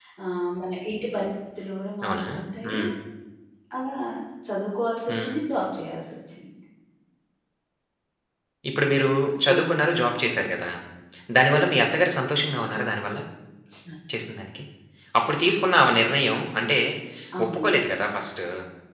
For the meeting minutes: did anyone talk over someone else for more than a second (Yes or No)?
No